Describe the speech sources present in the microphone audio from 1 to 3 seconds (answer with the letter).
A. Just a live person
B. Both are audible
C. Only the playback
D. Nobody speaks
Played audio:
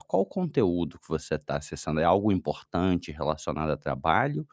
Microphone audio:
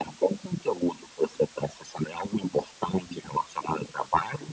C